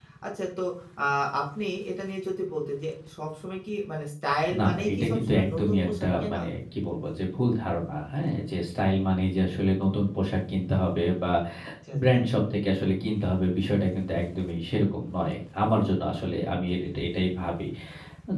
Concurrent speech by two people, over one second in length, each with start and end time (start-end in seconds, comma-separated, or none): 4.6-6.4